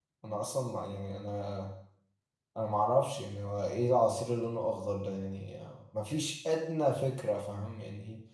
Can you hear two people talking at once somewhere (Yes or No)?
No